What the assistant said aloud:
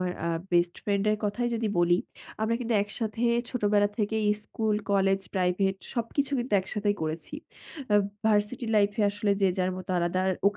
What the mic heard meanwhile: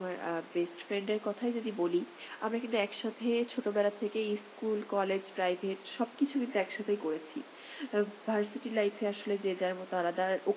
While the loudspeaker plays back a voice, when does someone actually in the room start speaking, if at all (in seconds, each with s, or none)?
none